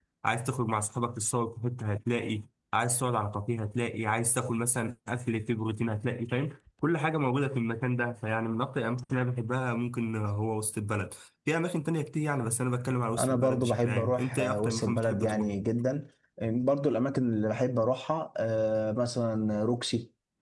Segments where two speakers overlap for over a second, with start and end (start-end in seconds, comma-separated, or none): 13.2-15.5